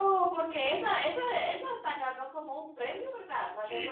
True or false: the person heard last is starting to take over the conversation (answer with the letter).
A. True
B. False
A